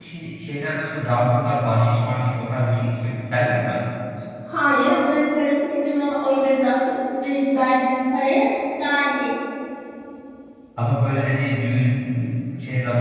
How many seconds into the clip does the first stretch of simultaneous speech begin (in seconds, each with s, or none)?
none